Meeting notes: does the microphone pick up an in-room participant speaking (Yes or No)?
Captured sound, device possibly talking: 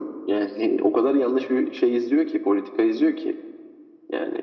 No